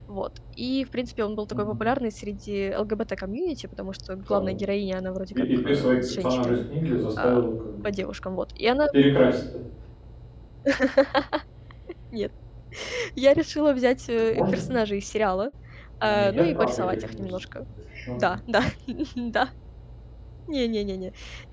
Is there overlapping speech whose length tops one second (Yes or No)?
Yes